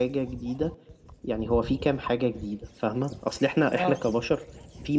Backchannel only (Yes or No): Yes